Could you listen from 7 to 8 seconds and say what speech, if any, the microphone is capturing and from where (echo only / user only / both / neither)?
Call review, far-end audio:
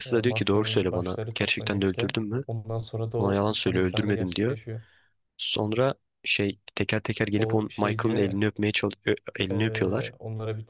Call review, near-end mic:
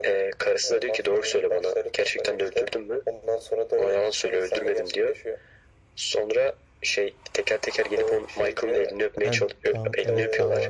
echo only